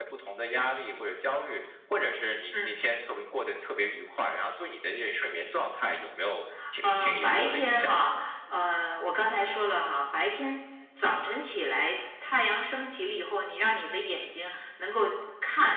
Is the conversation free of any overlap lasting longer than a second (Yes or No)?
No